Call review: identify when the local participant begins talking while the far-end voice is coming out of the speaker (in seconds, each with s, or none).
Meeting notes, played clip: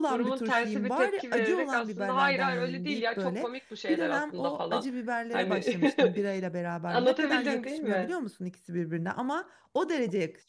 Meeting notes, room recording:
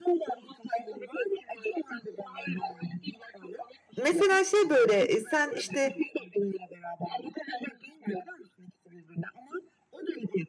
4.0 s